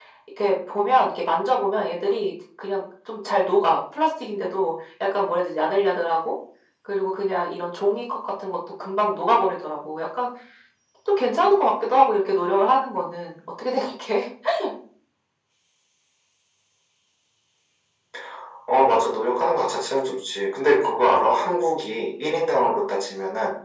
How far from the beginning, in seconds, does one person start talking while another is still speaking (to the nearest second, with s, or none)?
none